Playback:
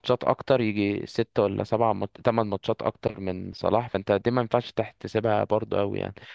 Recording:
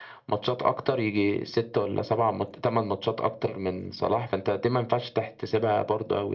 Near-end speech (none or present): none